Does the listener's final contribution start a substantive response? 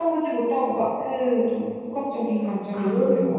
Yes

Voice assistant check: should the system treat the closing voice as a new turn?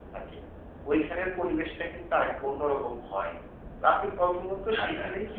No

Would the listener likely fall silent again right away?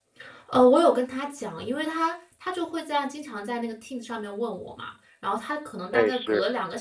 Yes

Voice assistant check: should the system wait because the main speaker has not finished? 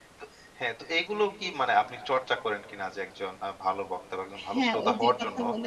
No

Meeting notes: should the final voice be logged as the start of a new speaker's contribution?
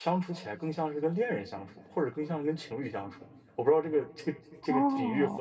Yes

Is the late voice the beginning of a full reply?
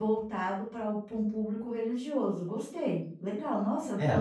Yes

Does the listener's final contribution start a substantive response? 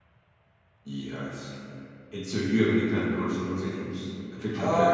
Yes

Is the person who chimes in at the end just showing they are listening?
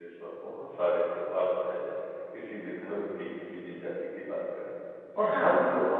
Yes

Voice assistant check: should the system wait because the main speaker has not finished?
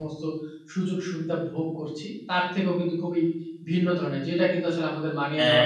Yes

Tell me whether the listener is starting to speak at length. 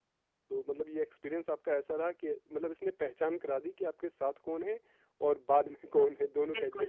Yes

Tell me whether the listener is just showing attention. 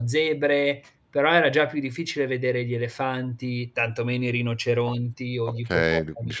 No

